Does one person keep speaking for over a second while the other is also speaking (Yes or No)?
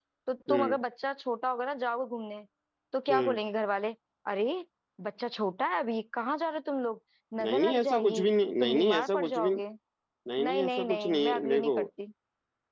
Yes